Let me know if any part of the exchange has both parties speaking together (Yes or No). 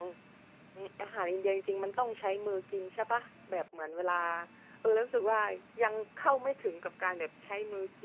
No